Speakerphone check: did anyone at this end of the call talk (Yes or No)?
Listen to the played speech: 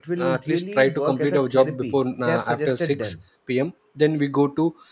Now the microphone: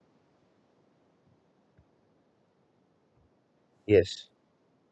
Yes